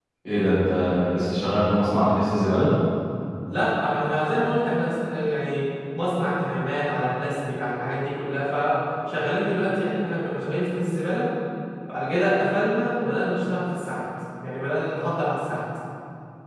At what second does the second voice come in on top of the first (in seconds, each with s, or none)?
none